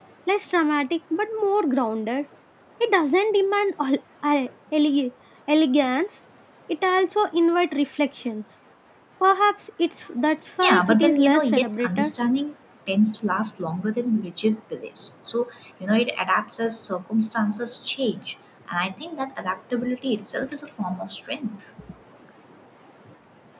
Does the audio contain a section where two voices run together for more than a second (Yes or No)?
Yes